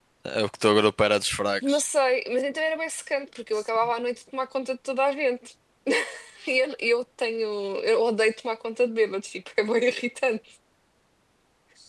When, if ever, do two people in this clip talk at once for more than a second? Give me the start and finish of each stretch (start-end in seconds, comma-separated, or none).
none